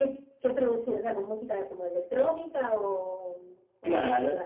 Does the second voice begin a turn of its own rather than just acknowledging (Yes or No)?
Yes